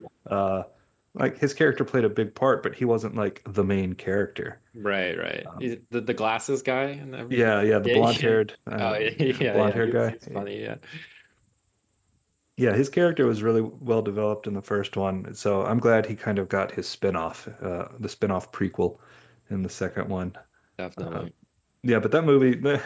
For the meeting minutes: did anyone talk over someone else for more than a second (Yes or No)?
Yes